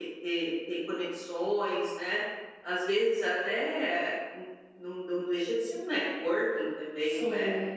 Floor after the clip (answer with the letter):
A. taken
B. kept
B